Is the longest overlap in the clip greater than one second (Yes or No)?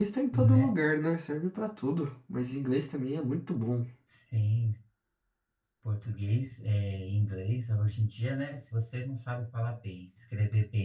No